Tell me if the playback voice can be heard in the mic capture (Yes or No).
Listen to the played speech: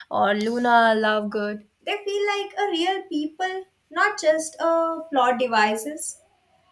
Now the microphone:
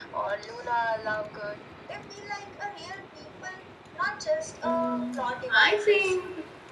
Yes